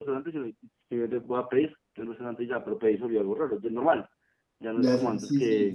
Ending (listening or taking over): taking over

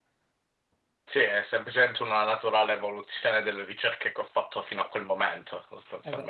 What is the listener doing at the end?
taking over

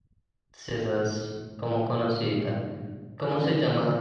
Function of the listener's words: listening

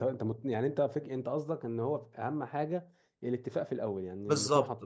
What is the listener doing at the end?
taking over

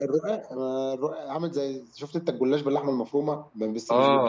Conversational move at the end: taking over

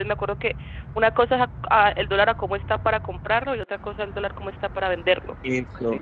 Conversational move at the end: taking over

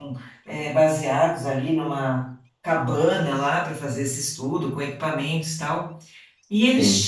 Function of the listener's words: listening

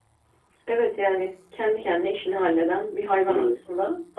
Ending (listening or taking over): taking over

